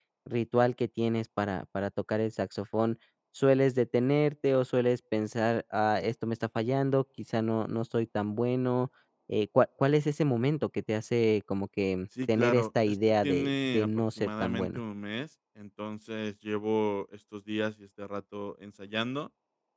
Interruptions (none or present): present